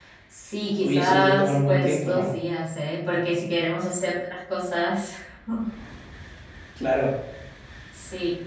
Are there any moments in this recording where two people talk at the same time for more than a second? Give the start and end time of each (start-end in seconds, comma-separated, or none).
0.8-2.4